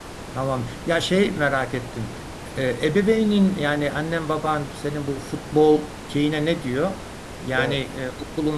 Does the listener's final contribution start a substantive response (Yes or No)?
No